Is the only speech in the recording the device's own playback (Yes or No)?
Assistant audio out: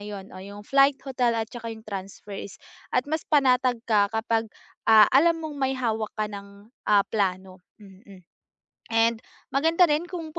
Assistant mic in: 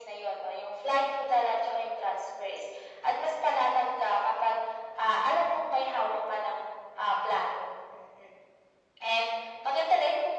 Yes